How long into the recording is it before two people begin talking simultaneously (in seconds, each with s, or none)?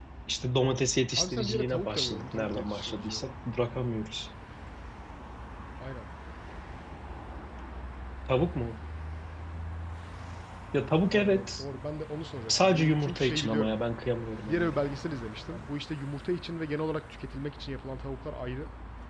1.2 s